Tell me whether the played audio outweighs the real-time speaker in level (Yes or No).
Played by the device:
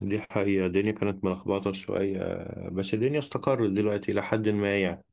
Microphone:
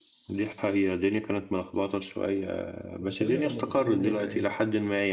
Yes